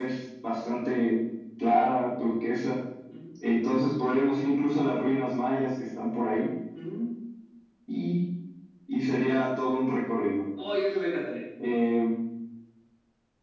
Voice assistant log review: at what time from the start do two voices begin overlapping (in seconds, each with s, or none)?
none